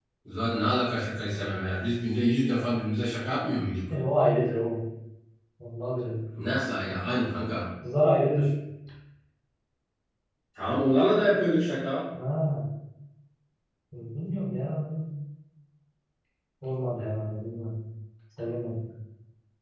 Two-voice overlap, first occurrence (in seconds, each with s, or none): none